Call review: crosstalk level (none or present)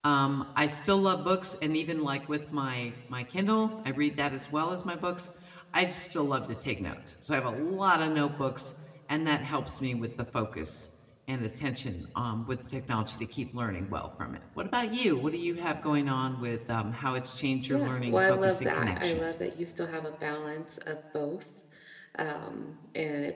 present